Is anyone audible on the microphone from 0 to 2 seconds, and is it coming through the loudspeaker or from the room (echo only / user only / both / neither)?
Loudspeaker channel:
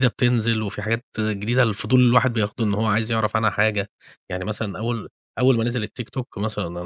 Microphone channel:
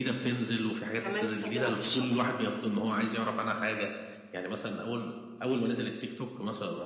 both